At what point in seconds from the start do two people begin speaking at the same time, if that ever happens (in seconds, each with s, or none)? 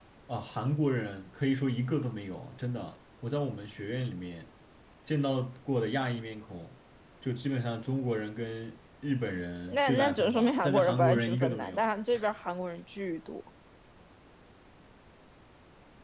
9.7 s